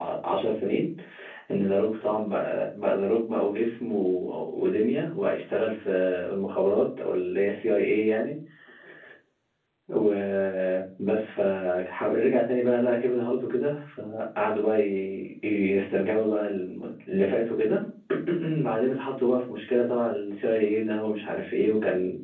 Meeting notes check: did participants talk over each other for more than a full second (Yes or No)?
No